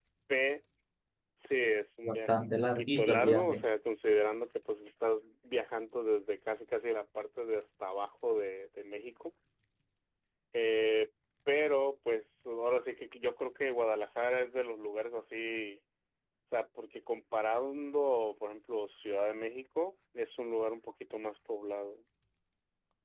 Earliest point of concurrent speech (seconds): 2.0 s

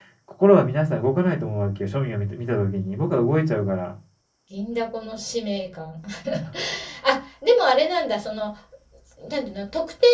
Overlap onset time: none

